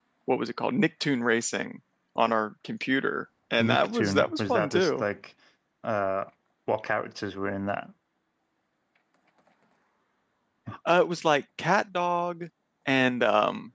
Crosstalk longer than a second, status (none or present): present